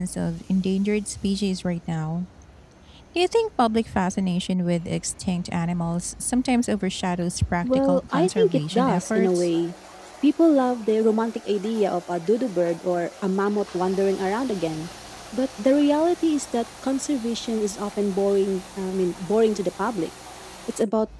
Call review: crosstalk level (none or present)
present